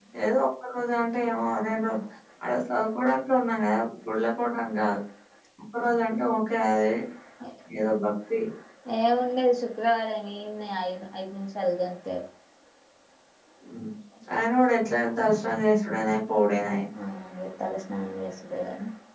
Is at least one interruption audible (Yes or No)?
No